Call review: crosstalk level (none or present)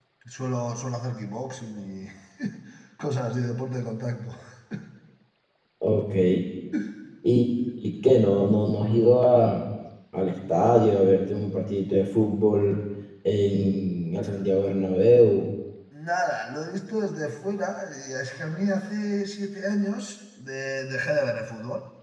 none